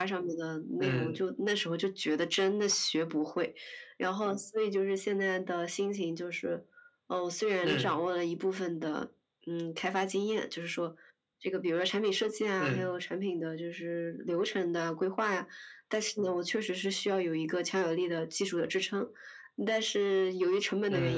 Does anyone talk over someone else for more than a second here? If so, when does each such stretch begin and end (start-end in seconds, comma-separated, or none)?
none